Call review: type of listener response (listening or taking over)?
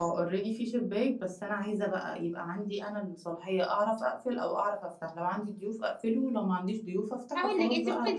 taking over